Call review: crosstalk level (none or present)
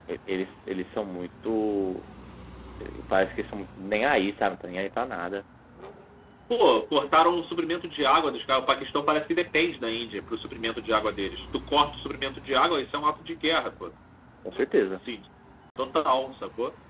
none